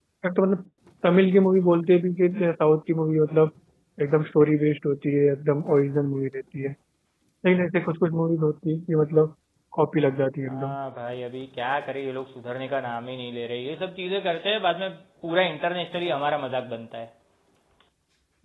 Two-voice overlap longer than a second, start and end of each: none

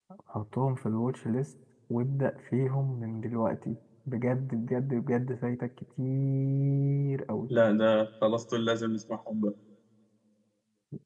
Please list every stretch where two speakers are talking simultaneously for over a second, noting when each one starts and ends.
none

